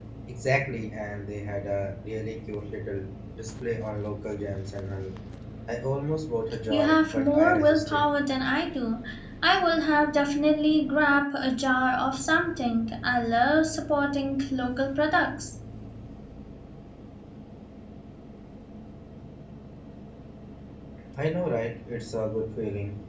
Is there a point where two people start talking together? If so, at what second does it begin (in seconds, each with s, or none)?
6.7 s